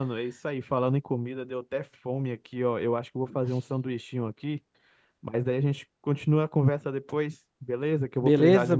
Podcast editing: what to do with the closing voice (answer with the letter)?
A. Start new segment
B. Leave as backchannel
A